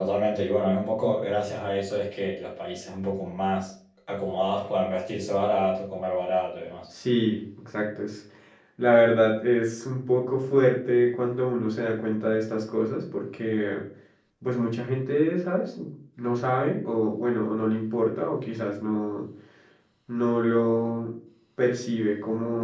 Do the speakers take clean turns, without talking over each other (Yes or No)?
Yes